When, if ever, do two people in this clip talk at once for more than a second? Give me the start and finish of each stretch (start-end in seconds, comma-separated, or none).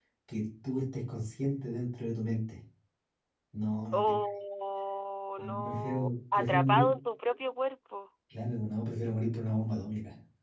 5.4-6.9